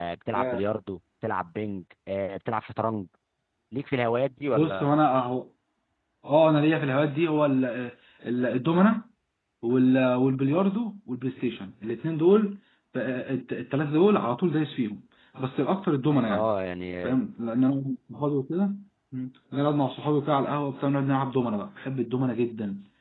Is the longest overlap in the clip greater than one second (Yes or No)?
No